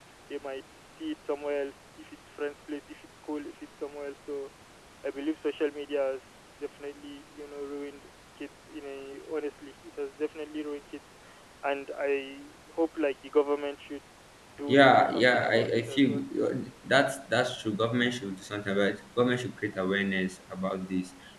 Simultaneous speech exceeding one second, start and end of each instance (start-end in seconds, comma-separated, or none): 14.7-16.2